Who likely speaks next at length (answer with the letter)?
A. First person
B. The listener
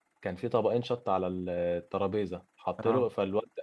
A